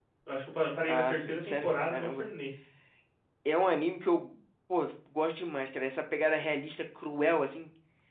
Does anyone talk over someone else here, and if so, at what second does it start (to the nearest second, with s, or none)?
1 s